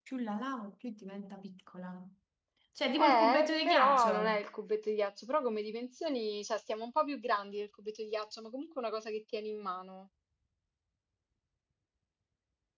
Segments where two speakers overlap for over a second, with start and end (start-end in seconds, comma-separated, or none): 3.0-4.4